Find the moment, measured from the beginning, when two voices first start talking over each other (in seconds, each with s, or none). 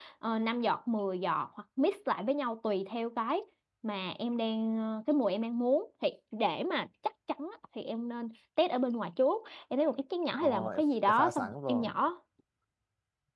10.4 s